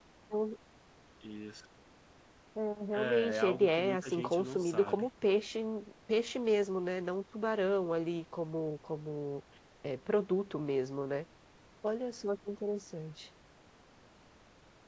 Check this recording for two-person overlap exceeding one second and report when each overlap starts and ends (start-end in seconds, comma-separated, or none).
2.9-5.1